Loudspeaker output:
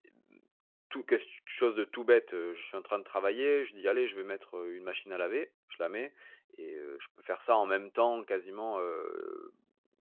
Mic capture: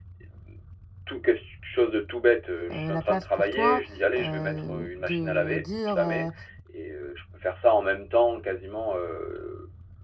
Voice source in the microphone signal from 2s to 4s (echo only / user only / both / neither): both